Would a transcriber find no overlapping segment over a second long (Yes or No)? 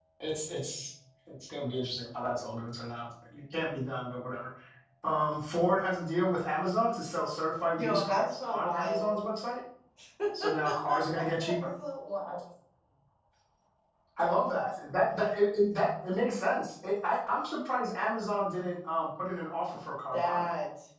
No